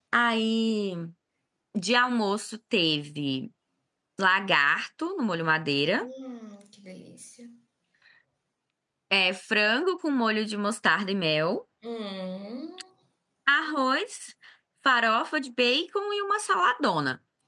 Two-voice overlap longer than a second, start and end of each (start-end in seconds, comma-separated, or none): none